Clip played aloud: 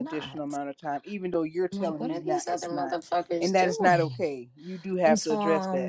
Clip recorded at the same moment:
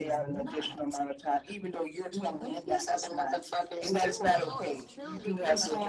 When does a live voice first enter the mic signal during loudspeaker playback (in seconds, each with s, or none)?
4.3 s